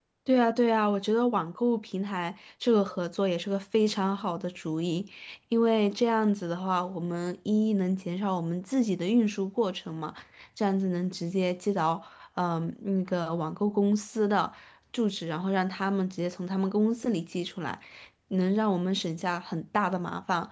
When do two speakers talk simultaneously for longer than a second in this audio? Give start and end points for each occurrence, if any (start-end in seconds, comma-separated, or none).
none